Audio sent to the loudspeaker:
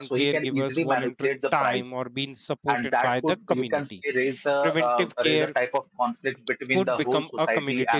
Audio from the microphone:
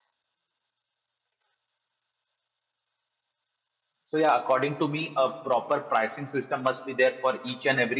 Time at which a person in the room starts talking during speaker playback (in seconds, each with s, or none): 4.0 s